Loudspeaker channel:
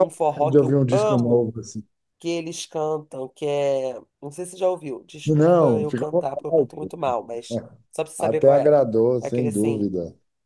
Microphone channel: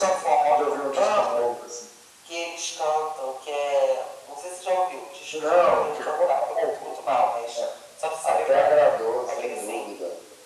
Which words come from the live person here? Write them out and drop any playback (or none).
none